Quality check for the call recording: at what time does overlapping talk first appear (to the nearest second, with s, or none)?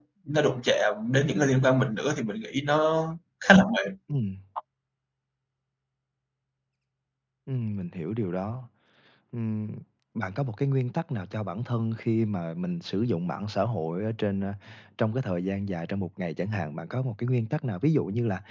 none